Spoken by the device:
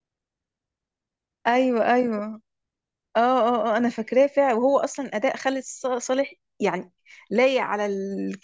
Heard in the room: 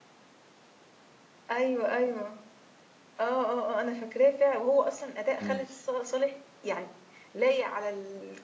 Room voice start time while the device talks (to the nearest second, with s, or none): 5 s